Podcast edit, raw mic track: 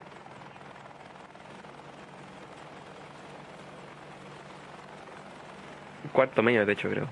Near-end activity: present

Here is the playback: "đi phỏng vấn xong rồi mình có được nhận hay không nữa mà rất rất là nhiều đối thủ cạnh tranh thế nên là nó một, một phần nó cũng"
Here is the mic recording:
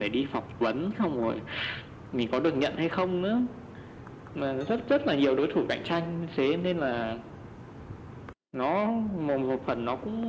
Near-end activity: none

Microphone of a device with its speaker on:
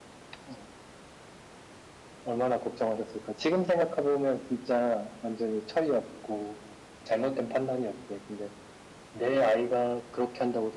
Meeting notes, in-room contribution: none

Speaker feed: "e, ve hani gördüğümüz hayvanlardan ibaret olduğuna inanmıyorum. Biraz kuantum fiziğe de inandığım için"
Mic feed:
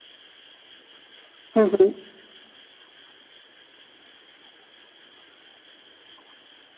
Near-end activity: present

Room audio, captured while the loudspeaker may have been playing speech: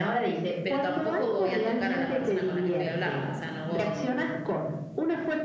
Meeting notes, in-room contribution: present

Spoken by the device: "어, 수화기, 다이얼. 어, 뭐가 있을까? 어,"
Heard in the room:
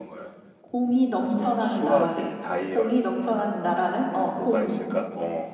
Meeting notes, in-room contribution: present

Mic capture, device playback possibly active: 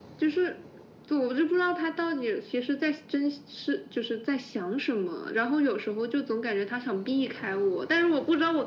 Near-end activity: none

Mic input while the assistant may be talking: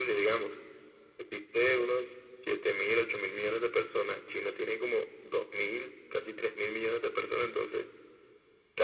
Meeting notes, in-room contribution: none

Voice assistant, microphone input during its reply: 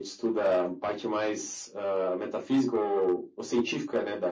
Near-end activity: none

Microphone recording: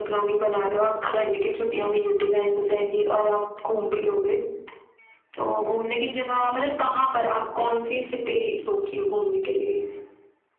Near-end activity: none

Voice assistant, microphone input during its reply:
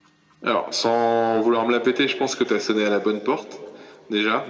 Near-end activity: none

